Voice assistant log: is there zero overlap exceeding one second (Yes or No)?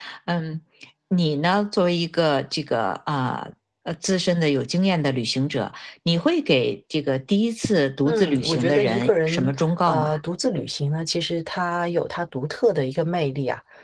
No